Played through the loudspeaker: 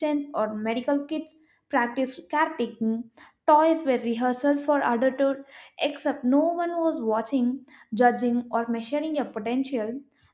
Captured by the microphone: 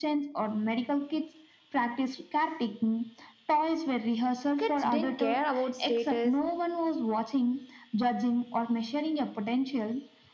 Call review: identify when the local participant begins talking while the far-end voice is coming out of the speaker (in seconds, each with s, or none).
4.6 s